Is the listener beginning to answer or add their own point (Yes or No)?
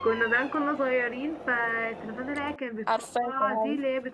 No